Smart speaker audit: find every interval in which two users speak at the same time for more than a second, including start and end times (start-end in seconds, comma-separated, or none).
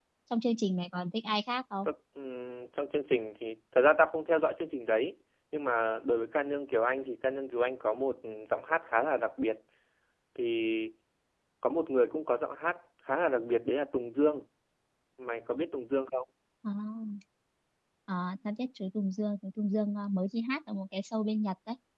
none